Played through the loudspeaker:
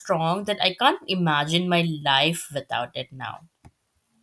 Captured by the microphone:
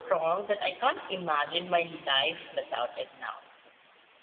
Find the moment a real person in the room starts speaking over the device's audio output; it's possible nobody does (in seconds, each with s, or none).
none